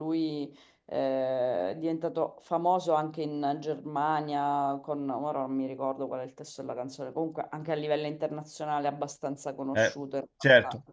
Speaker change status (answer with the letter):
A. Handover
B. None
A